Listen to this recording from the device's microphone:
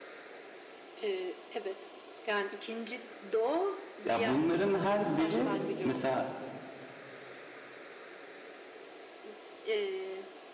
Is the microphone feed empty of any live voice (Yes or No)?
No